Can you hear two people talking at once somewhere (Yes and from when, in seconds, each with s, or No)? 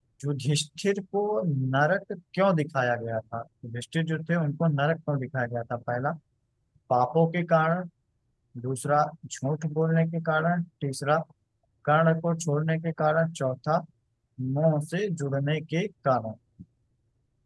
No